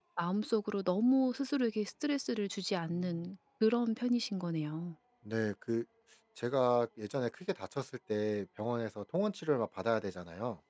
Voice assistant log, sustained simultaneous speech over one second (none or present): none